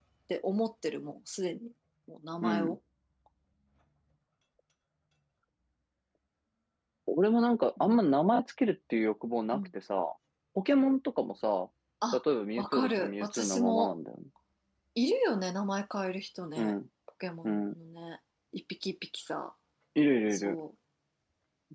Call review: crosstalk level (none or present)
present